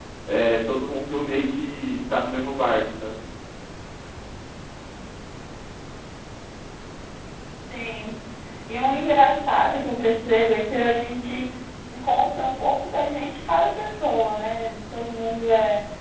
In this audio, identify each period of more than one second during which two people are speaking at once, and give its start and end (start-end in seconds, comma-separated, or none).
none